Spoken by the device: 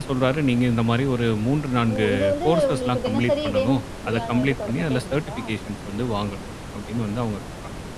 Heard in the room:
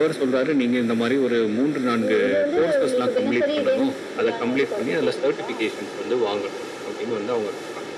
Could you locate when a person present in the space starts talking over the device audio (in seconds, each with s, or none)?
none